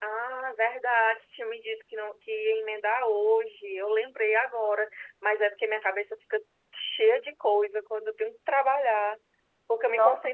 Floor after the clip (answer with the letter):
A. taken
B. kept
B